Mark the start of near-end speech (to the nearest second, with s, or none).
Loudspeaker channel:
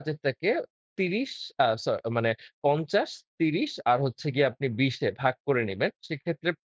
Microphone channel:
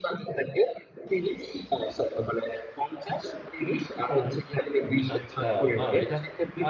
4 s